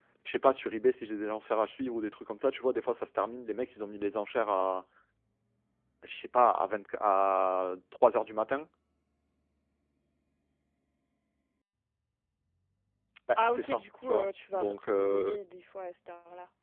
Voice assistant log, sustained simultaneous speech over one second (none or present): present